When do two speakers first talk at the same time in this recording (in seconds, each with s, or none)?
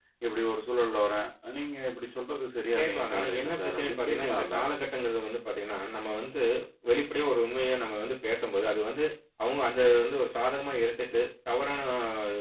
2.8 s